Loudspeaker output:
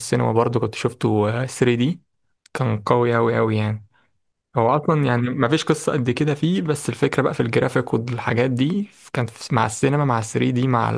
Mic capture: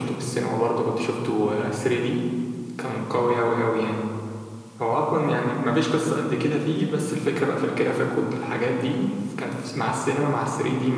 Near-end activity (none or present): none